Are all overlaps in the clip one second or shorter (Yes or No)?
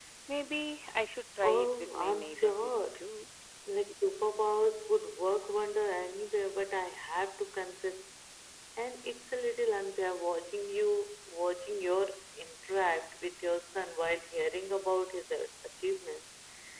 No